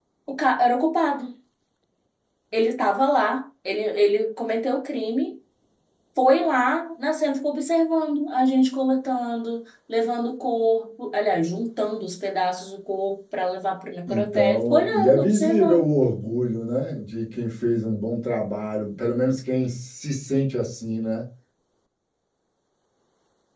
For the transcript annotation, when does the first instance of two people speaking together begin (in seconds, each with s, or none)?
14.1 s